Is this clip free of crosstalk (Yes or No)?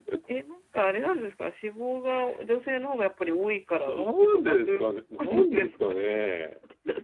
No